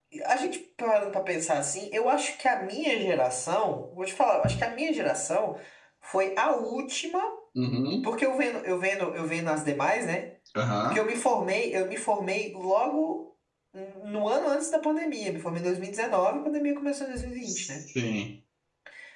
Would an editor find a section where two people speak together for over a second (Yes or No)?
No